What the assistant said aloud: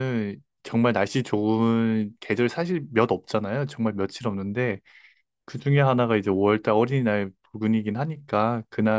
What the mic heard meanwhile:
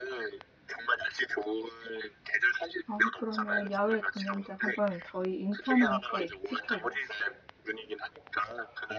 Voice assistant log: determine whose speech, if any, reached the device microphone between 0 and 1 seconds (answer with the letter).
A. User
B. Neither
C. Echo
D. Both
C